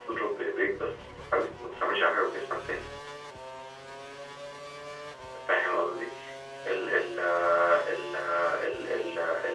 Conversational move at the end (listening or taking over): listening